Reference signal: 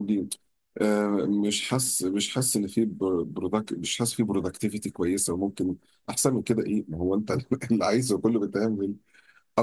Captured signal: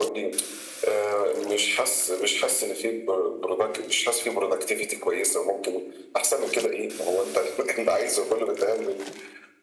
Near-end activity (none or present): none